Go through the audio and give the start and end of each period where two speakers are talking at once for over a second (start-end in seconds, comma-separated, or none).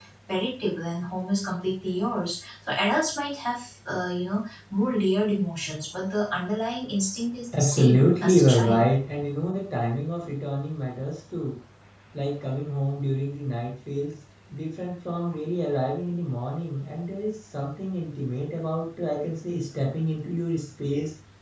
7.5-8.9